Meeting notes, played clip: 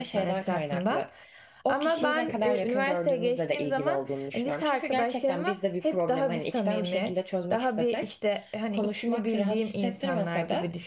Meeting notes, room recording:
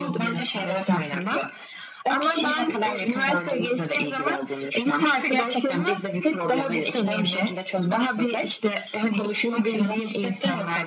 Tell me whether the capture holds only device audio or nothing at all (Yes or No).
Yes